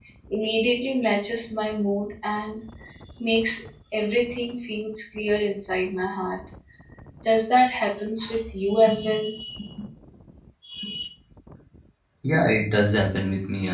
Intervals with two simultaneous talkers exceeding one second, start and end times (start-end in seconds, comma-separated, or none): none